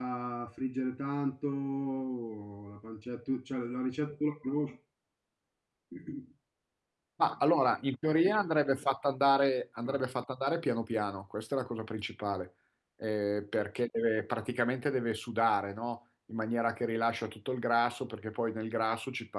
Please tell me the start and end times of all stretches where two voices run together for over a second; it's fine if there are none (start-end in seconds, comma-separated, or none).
none